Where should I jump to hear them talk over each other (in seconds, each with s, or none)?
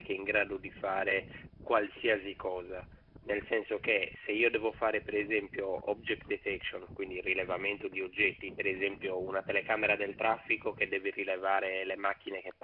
none